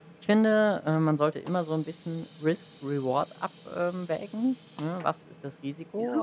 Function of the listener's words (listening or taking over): listening